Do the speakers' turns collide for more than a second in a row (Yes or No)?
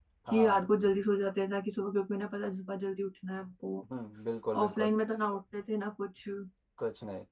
No